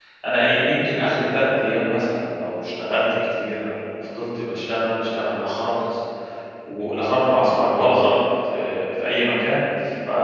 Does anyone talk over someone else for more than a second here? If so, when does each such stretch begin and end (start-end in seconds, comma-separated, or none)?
none